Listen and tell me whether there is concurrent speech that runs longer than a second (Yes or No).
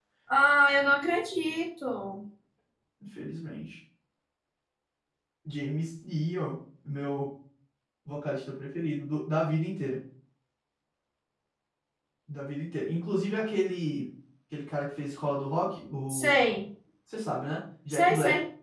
No